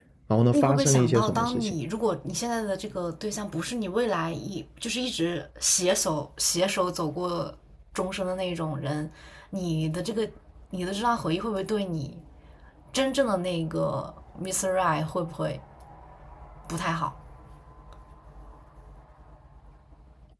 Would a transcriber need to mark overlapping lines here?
Yes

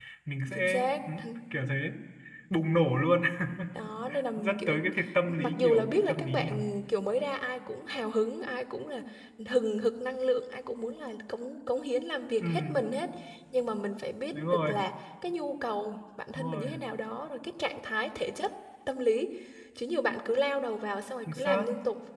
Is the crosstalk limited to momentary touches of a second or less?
No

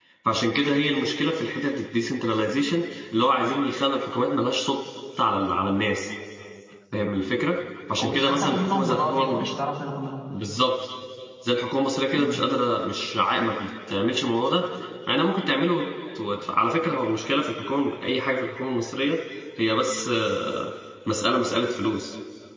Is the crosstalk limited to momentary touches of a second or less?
No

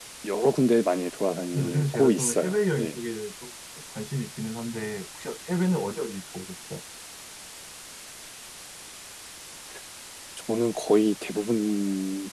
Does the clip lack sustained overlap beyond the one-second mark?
No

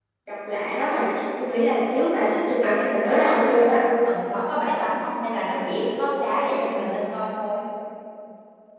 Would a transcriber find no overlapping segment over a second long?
No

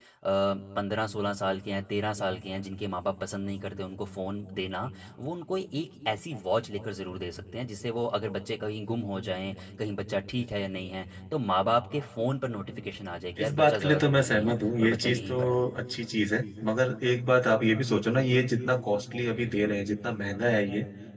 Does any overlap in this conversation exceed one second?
Yes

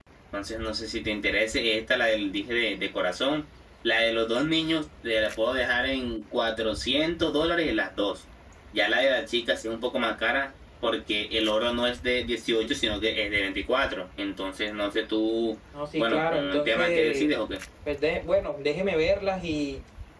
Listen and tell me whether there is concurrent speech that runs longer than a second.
Yes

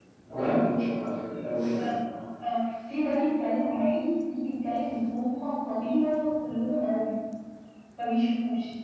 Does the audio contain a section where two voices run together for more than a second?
No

